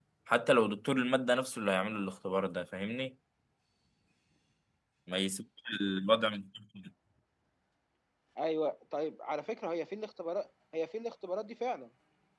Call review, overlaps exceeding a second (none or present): none